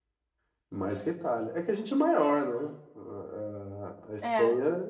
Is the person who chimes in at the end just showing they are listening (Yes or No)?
Yes